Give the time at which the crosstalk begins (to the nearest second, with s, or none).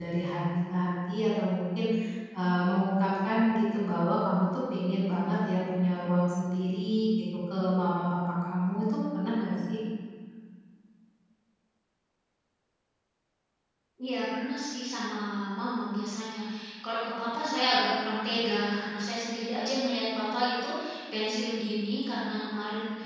none